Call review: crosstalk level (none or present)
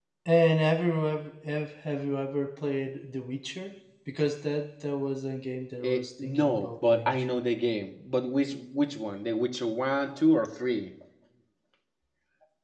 present